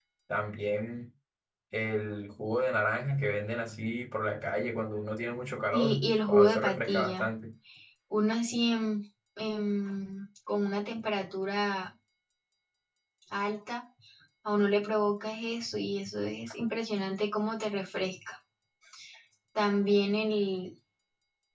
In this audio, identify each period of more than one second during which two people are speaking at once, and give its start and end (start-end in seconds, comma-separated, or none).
5.7-7.2